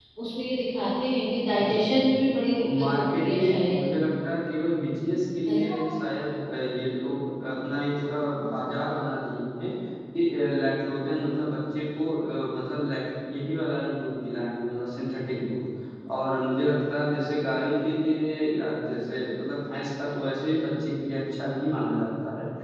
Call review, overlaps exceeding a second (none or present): present